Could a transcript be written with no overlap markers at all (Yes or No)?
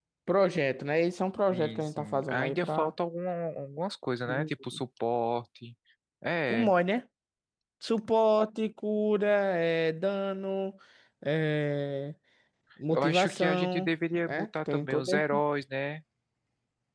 No